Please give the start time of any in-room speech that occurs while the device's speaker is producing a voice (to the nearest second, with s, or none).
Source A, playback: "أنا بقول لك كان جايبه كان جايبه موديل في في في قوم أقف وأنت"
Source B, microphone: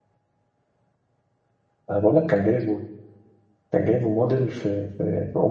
none